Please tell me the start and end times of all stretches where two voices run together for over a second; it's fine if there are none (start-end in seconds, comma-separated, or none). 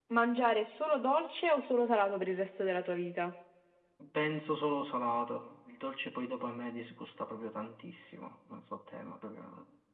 none